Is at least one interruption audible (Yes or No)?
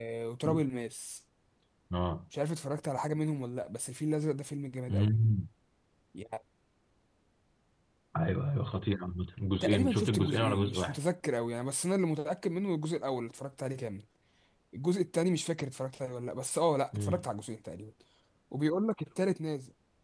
Yes